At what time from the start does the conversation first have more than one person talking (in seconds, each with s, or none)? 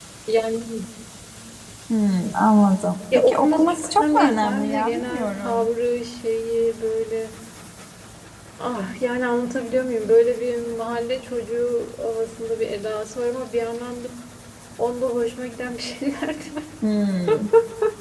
3.1 s